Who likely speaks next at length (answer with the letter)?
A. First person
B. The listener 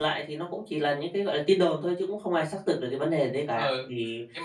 B